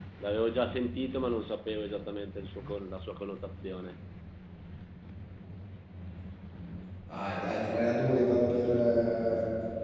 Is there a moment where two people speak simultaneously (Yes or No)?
No